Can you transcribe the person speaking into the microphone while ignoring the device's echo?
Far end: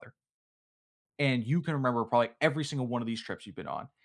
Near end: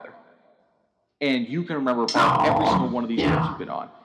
Aw, yeah.

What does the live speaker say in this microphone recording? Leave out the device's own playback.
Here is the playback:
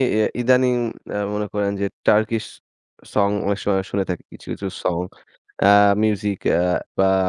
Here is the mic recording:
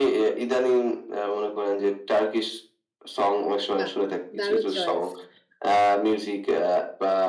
বাহ! দারুণ চয়েস!

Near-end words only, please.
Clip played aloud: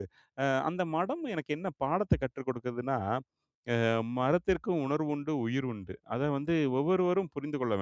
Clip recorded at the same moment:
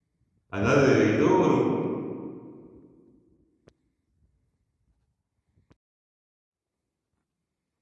அதாவது ஏதோ ஒரு

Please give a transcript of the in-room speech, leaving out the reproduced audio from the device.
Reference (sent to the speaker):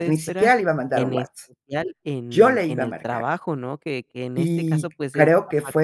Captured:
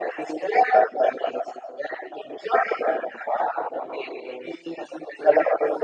none

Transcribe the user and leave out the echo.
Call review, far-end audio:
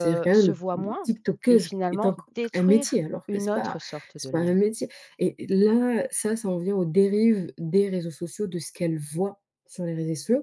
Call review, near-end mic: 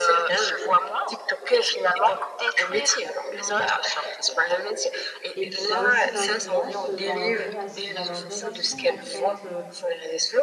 Et puis ça a aussi une influence, heu, dans leur rela dans leur relation, en fait, heu,

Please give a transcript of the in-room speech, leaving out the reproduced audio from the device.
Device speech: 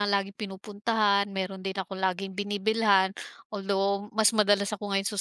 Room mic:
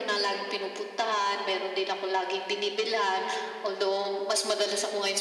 none

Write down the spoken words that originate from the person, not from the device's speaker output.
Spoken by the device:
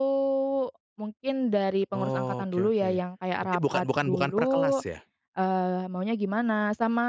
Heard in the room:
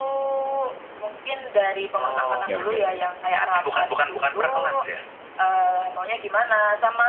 oke oke.

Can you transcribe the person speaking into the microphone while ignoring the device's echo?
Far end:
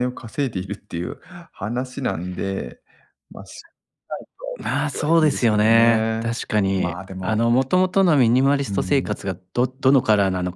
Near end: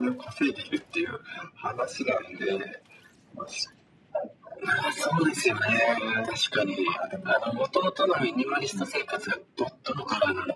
none

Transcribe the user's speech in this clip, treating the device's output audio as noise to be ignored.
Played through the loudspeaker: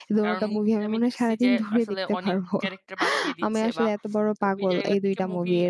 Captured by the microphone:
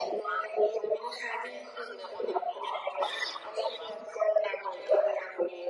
none

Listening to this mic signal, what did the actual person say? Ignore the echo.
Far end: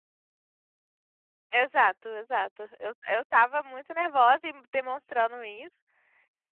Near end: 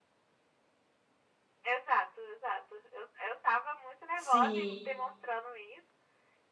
Sim.

